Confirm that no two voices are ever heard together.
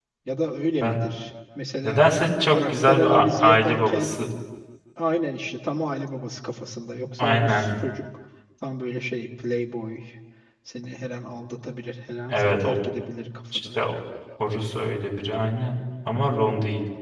No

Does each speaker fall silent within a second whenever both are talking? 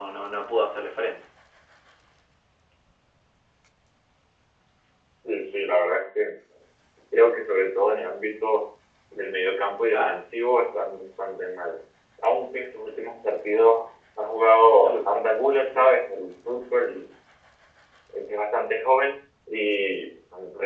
Yes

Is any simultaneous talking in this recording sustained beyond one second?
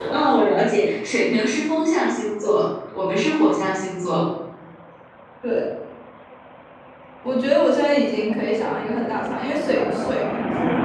No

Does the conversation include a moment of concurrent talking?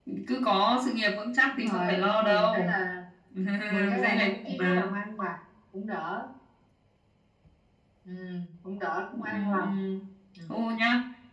Yes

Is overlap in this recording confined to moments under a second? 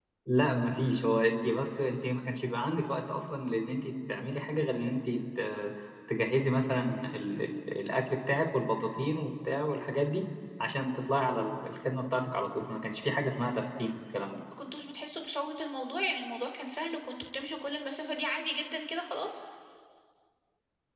Yes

